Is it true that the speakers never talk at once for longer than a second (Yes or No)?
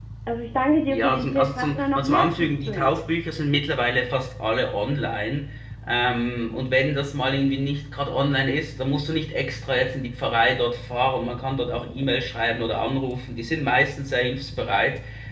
No